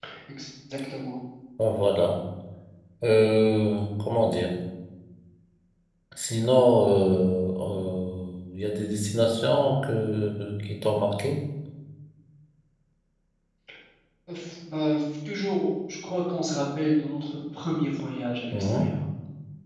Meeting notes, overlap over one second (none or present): none